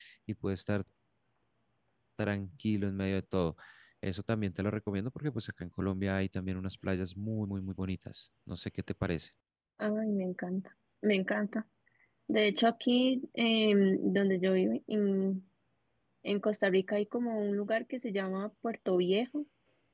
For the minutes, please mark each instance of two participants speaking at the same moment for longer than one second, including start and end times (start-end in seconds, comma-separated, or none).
none